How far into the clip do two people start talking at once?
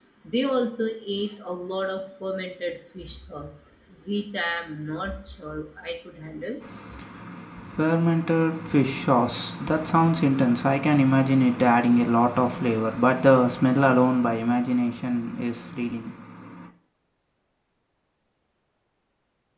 none

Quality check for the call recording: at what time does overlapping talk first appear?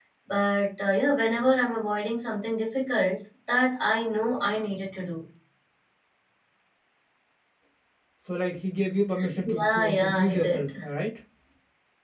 9 s

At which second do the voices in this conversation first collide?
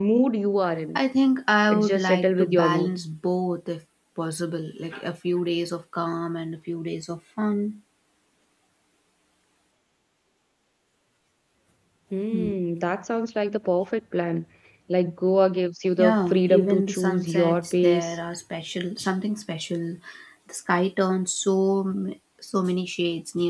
2 s

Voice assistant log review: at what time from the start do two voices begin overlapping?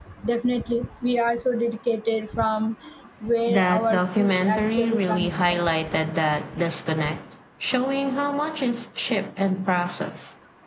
3 s

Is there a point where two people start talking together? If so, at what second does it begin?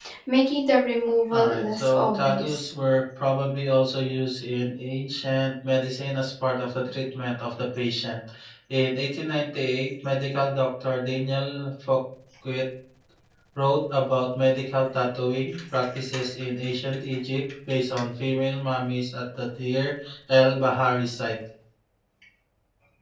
1 s

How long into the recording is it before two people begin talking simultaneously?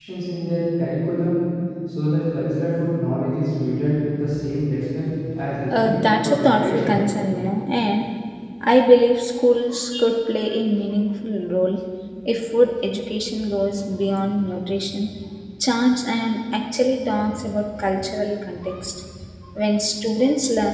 6 s

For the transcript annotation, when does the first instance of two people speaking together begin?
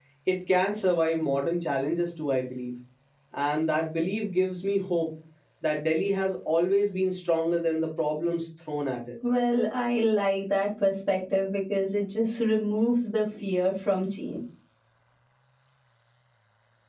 none

